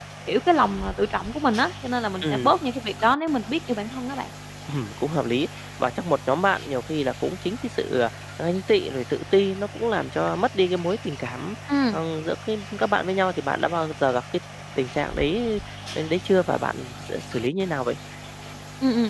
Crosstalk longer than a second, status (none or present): none